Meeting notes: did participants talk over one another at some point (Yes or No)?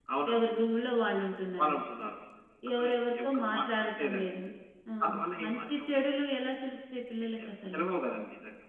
Yes